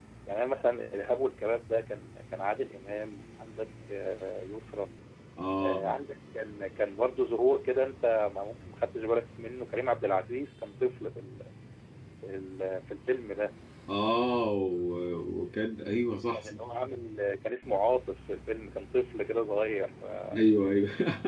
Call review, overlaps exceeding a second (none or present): none